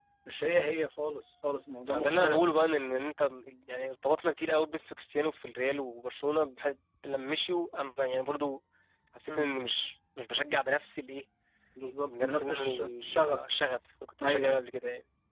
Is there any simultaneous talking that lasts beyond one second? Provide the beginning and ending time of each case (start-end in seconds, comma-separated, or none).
12.1-13.4